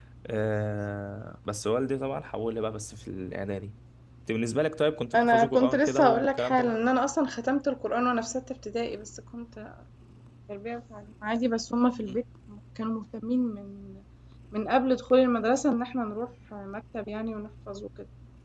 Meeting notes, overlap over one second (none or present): present